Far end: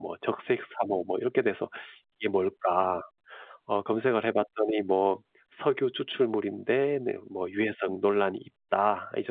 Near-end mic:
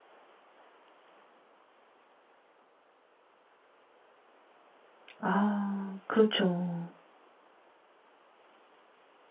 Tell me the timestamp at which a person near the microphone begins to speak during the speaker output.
5.2 s

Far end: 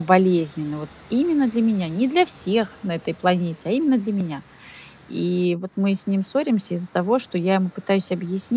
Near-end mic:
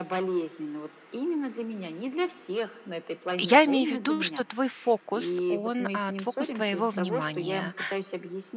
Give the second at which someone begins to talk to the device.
3.4 s

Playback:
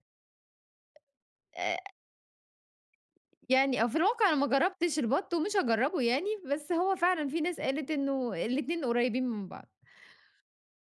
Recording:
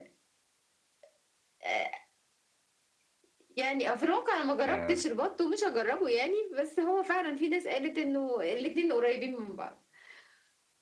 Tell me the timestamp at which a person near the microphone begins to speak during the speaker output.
4.6 s

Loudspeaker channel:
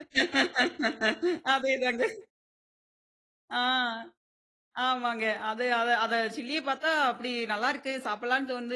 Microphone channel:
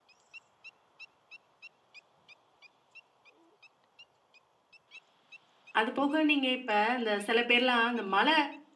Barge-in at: 5.8 s

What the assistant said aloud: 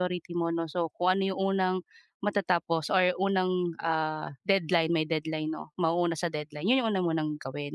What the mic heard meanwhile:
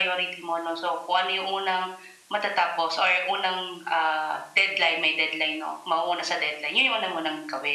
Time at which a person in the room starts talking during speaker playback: none

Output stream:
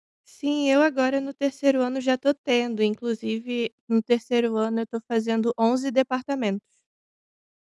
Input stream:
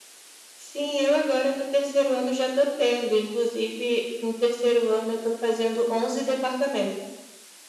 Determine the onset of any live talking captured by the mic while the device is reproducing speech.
none

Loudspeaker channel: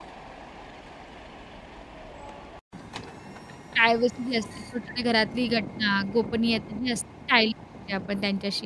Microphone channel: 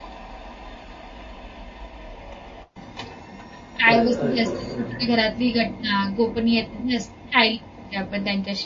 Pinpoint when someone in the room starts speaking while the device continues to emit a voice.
3.9 s

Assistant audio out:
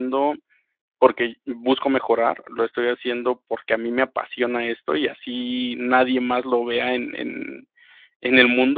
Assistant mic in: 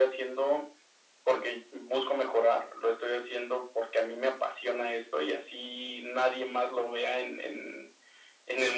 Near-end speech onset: none

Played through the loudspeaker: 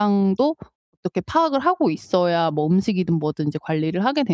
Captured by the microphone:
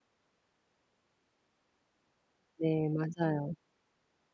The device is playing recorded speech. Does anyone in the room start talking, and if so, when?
2.6 s

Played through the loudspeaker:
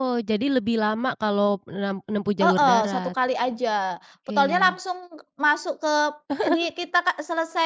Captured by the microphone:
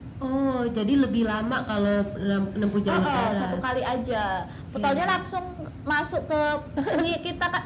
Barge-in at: none

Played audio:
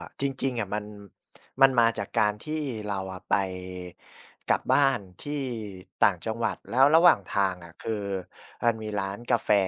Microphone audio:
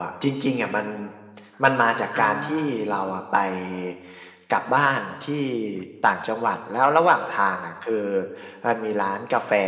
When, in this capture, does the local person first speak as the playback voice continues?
2.1 s

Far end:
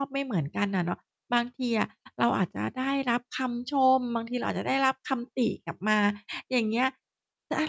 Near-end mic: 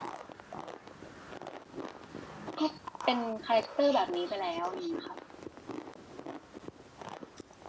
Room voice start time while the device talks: 2.6 s

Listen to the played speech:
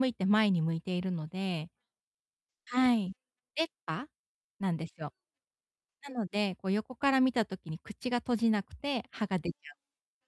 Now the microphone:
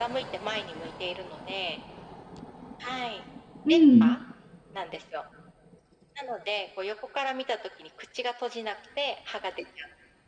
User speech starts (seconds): 3.6 s

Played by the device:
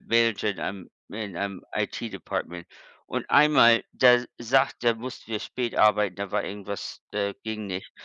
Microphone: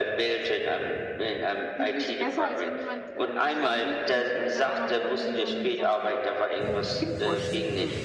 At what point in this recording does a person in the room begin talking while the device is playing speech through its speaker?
1.8 s

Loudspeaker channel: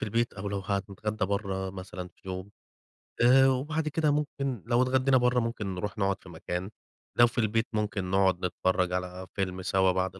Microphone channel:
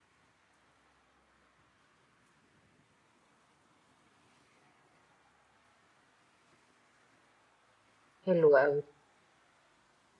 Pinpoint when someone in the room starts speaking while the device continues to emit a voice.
8.3 s

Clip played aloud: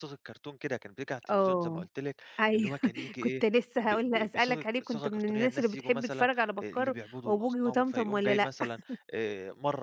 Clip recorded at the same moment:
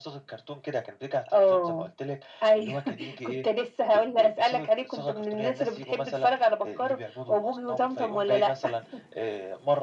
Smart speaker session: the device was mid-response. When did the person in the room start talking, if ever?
none

